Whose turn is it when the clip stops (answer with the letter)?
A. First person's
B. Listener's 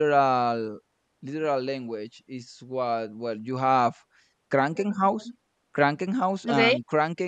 A